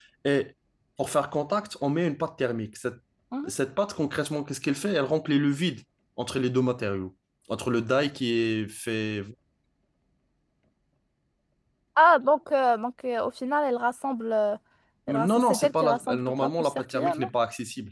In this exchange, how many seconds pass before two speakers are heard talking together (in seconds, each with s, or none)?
15.1 s